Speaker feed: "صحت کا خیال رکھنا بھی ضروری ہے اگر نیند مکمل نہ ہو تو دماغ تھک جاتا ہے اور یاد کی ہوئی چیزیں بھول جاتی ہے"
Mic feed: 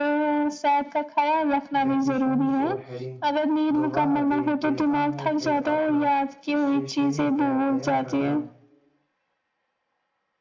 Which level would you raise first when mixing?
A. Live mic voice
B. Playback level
A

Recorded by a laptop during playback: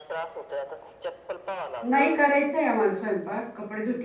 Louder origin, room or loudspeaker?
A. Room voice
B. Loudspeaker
A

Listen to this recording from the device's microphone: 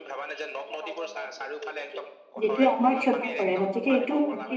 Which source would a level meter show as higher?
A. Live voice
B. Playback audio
A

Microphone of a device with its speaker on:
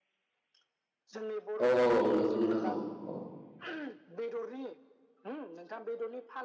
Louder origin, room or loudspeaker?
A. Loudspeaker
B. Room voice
B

